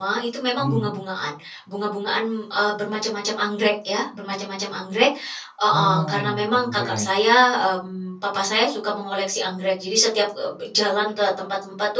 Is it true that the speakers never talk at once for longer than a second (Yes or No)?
No